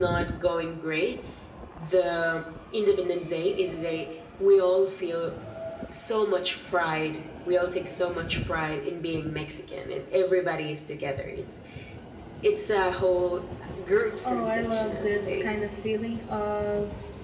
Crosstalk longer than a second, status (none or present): present